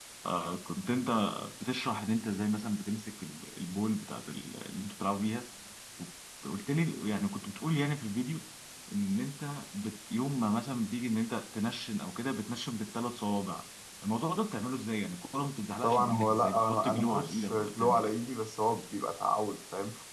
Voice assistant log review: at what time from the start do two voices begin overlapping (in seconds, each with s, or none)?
15.8 s